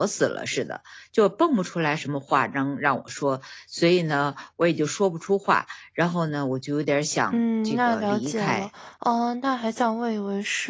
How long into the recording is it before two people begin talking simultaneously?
7 s

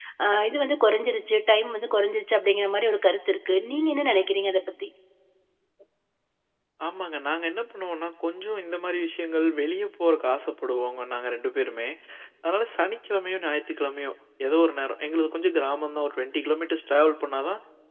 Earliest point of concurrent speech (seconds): none

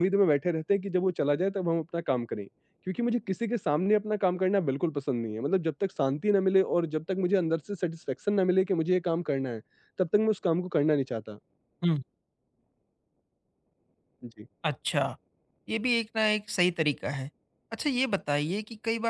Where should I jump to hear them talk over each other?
none

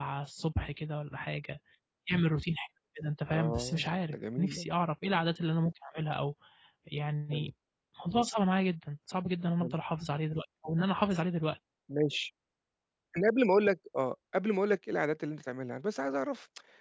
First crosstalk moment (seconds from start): 3 s

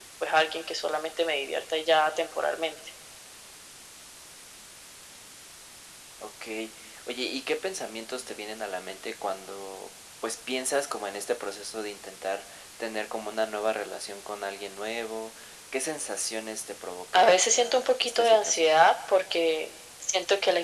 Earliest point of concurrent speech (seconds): 17 s

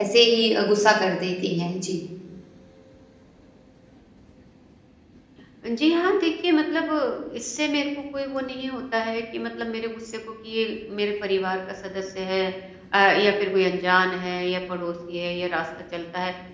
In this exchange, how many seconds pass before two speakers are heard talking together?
none

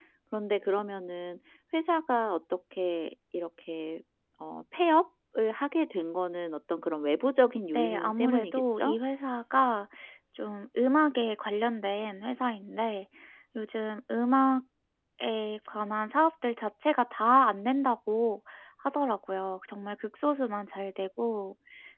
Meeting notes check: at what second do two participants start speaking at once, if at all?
8 s

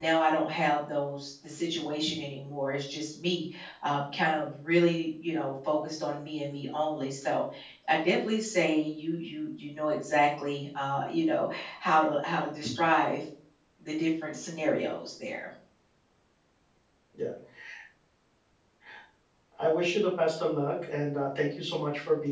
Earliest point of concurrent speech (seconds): none

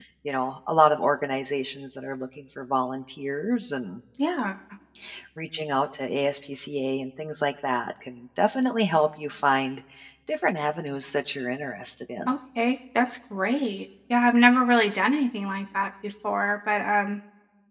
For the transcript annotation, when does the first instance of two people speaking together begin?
none

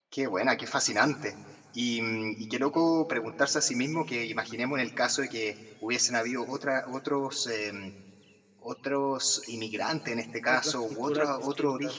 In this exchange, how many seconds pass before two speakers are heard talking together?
10 s

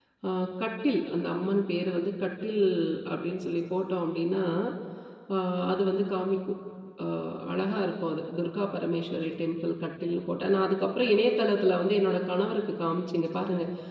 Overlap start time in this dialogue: none

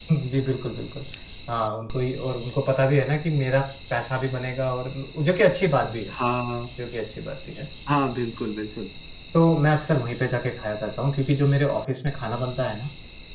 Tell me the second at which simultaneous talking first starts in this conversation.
none

